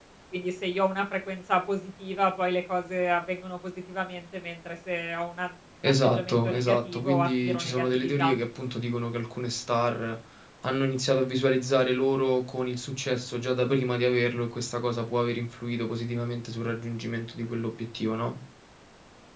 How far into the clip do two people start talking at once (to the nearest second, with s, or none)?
6 s